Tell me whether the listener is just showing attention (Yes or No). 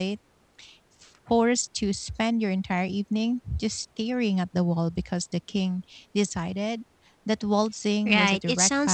No